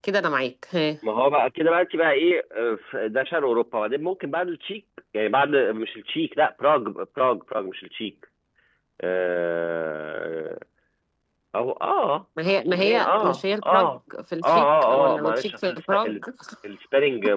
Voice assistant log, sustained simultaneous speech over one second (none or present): present